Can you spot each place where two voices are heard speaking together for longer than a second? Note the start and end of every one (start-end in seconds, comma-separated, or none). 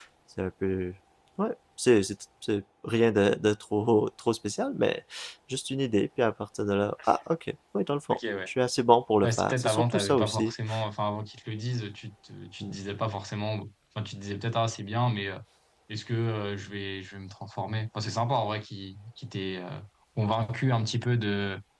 9.2-10.5